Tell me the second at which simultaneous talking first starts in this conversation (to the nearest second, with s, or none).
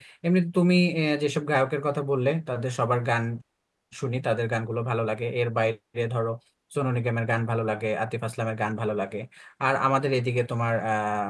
none